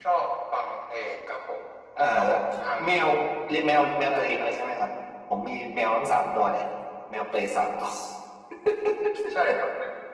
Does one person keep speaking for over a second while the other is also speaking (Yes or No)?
No